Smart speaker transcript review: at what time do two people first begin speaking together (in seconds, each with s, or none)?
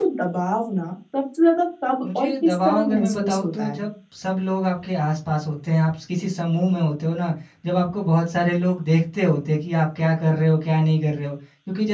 2.0 s